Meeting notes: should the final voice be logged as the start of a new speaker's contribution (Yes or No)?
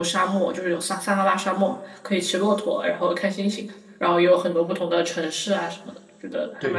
Yes